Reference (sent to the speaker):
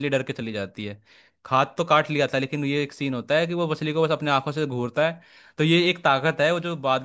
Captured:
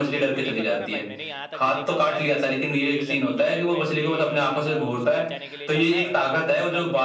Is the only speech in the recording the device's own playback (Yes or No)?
No